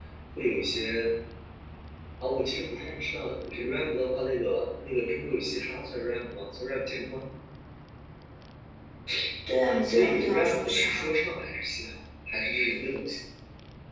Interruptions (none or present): present